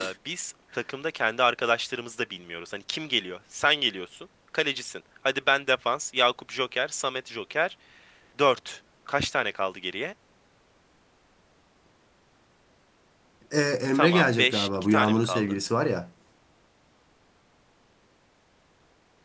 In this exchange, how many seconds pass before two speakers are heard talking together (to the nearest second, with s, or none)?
14 s